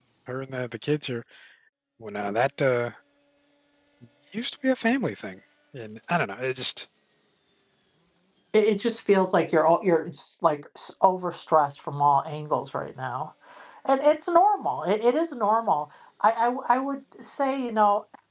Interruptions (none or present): none